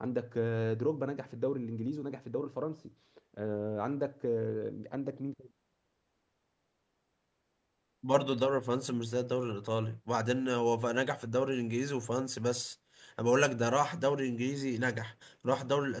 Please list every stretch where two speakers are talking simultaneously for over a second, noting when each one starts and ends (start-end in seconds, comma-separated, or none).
none